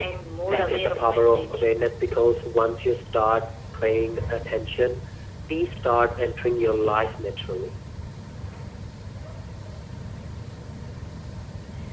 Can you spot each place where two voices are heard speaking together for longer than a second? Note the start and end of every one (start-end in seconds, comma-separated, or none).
0.5-1.8